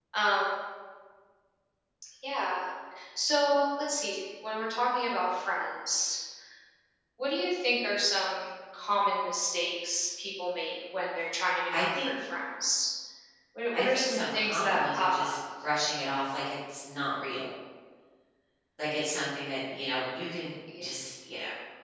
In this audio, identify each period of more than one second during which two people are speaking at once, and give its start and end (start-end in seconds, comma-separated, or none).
13.7-15.4